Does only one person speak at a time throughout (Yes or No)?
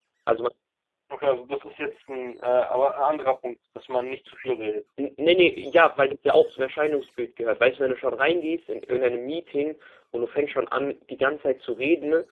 Yes